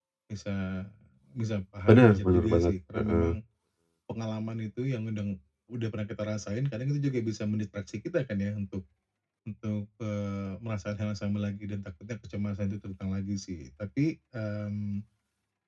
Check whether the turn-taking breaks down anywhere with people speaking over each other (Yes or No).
Yes